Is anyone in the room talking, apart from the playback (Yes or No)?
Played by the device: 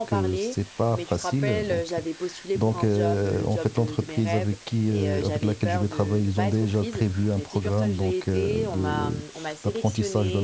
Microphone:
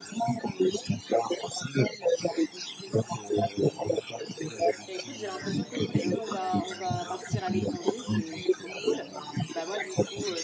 Yes